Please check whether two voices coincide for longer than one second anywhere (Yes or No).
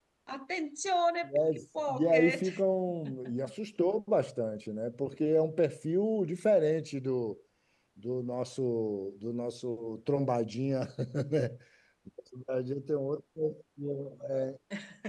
Yes